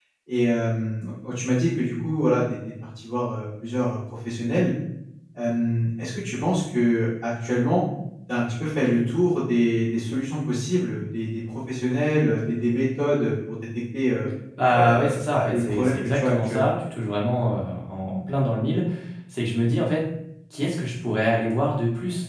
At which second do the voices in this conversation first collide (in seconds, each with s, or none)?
14.7 s